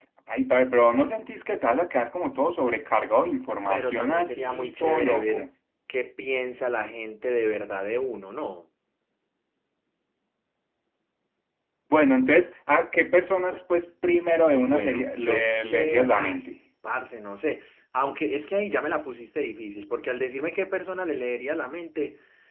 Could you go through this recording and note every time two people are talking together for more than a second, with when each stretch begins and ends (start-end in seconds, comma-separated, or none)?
3.7-5.5, 14.6-16.5